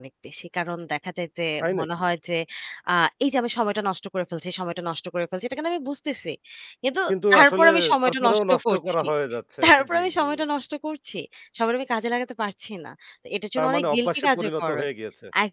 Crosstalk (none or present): present